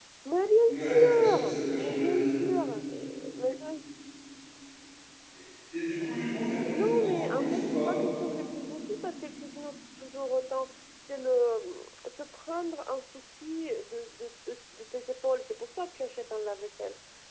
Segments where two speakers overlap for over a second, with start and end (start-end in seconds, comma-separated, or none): 0.7-2.3, 6.7-7.9